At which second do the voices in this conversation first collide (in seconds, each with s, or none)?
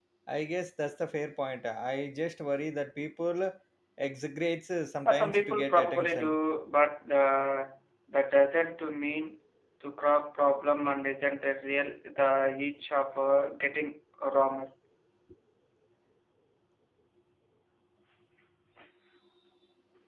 5.0 s